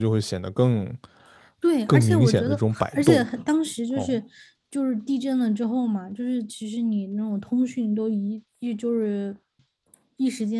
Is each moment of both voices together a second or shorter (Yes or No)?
No